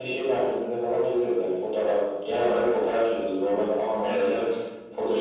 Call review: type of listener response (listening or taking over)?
listening